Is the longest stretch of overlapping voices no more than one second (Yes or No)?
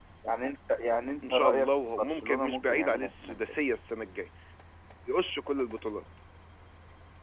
No